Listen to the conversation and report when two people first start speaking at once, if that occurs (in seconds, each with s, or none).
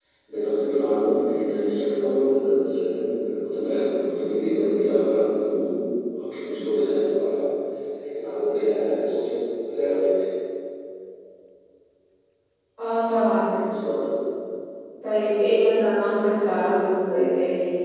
none